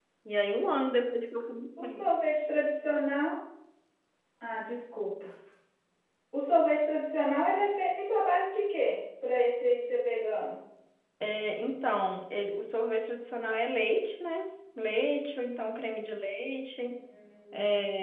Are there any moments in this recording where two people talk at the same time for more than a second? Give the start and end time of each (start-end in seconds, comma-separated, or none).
none